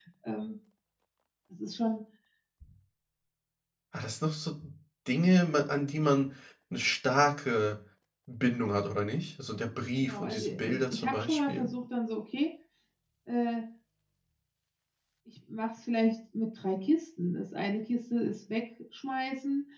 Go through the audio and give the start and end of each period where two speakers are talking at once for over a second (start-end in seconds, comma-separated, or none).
10.0-11.7